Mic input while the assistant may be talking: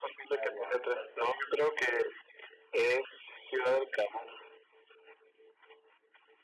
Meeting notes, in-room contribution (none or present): present